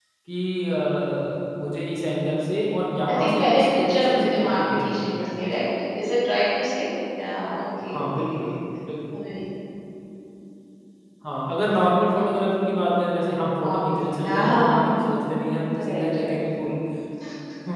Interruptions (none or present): present